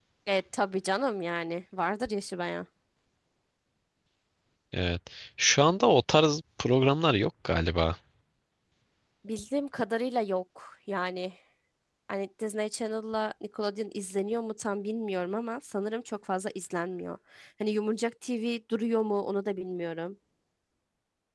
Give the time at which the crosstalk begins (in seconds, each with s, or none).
none